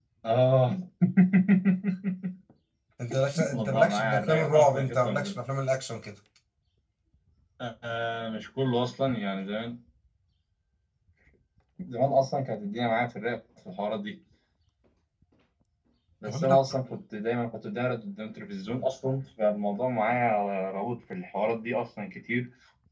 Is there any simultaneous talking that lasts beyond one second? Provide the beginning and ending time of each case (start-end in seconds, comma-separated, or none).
3.5-5.4